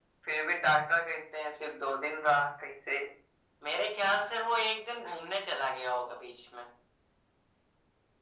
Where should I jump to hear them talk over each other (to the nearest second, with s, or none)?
none